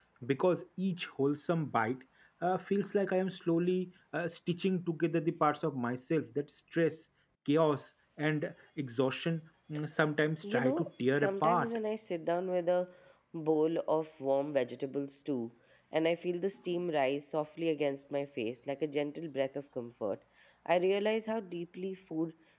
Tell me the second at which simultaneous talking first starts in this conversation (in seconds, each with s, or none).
10.4 s